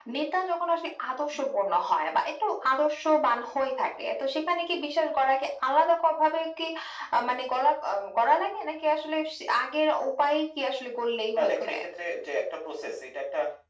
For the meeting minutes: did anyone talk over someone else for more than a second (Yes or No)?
No